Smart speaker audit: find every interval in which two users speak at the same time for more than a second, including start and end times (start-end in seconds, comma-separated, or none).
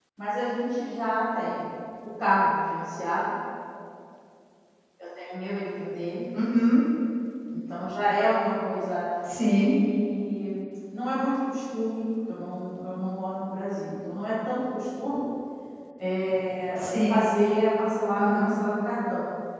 none